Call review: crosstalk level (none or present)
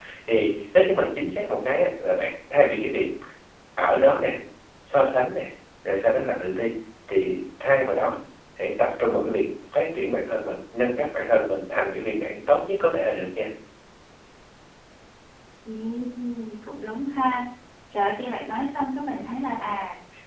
none